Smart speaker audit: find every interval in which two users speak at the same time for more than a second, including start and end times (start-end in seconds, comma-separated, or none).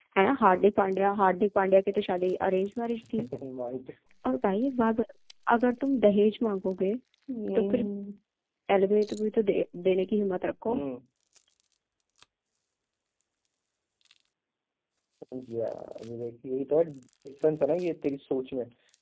none